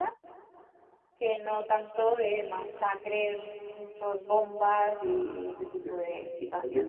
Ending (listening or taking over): taking over